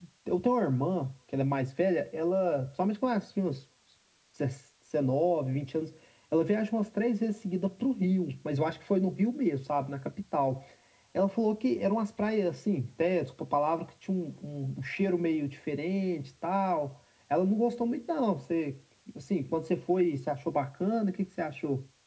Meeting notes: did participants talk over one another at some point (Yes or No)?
No